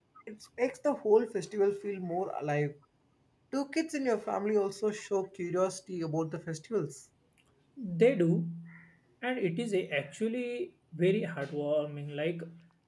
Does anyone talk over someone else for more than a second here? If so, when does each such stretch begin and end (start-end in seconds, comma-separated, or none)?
none